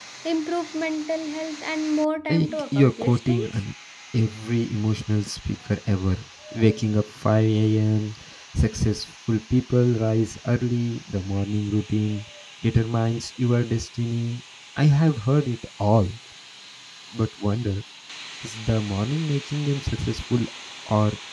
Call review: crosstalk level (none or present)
present